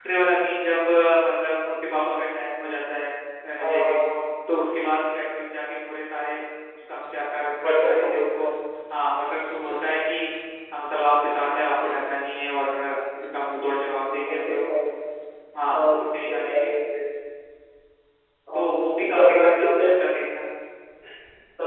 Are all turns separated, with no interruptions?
No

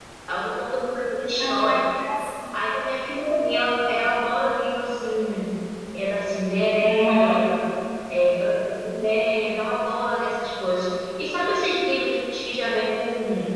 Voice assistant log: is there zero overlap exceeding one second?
Yes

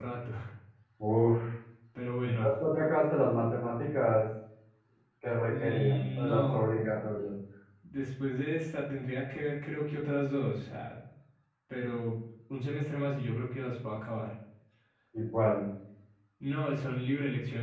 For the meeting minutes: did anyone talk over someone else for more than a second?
Yes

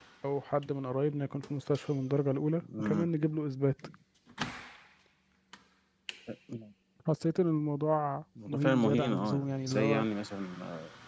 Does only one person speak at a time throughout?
No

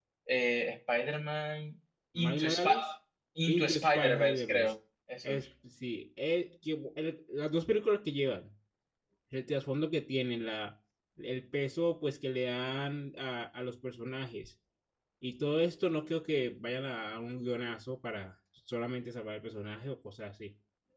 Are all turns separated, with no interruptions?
No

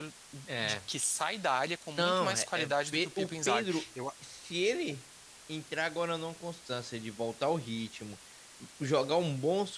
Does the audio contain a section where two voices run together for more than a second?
Yes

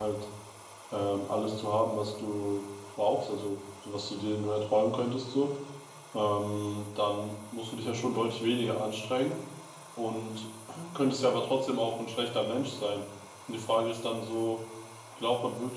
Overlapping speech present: No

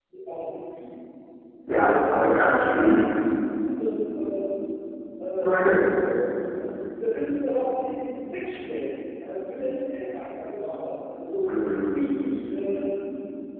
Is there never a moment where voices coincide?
No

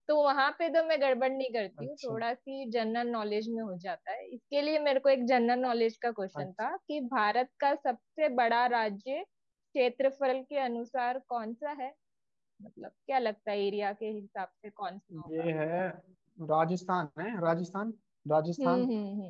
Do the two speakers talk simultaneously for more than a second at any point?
No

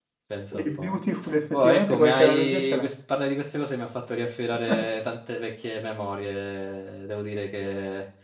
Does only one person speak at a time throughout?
No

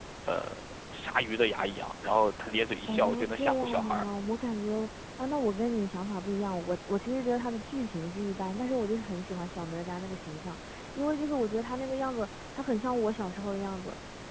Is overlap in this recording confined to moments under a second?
No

